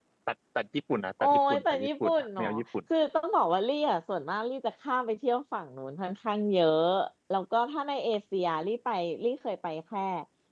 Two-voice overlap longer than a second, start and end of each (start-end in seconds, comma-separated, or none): 1.2-2.5